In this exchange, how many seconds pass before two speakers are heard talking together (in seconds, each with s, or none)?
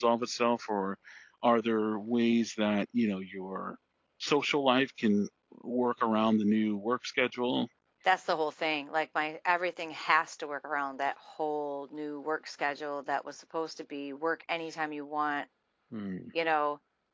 none